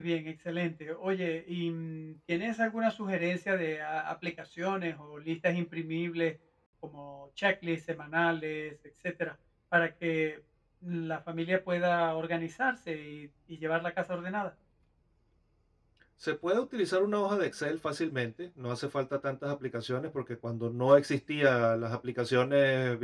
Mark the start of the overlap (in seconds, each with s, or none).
none